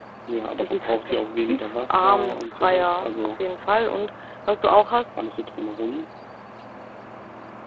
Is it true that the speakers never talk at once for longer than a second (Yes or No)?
No